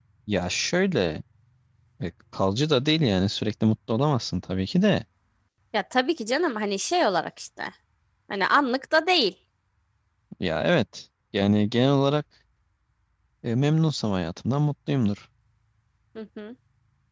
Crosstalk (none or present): none